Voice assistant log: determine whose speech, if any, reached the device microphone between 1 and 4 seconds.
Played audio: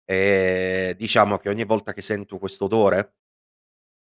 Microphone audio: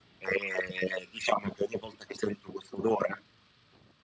echo only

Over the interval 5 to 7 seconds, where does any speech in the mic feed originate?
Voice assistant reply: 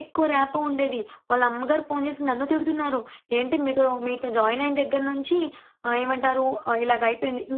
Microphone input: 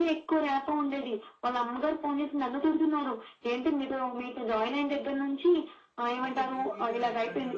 both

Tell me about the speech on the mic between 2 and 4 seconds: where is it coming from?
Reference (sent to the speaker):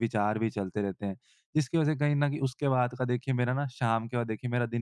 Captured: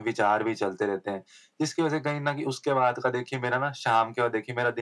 echo only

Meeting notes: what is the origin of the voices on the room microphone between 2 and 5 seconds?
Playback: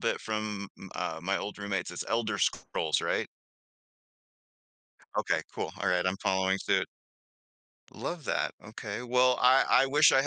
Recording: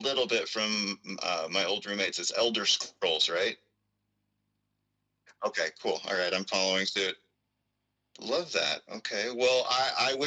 echo only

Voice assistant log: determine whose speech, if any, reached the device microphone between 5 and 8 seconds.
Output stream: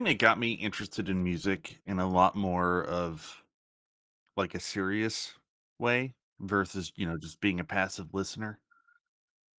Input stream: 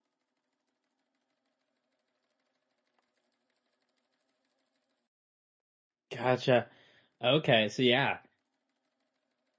user only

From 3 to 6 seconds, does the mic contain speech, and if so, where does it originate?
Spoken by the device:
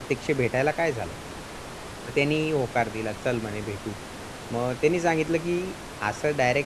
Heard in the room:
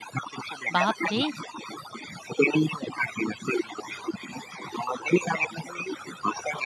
echo only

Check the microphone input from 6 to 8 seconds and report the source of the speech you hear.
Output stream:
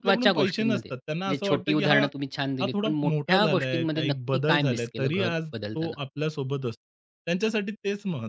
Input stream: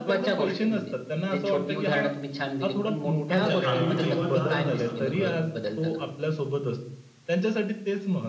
echo only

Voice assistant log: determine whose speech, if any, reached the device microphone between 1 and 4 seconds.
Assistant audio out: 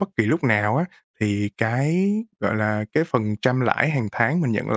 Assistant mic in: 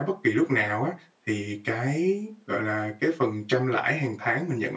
echo only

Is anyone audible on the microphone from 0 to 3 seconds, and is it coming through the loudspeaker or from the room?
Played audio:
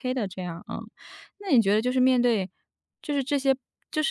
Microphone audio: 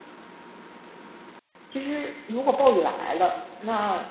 user only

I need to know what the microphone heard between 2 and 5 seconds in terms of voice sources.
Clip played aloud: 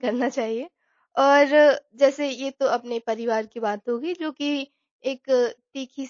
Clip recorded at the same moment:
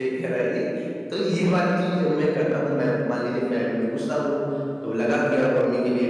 user only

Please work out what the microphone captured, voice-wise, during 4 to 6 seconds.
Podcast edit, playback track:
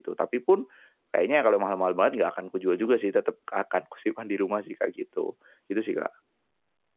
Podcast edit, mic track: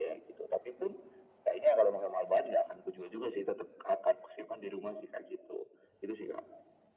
echo only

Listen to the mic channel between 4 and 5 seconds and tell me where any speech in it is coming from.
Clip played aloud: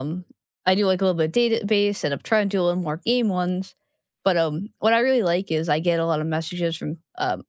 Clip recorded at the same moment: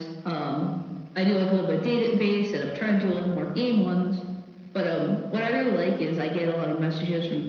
echo only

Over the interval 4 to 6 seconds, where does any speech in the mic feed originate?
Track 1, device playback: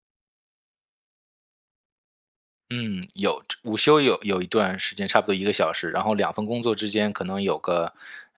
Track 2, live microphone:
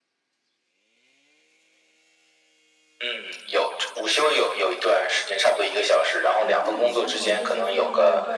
echo only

